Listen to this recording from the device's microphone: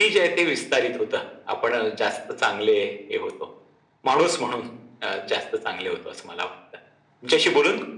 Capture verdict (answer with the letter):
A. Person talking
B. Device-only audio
B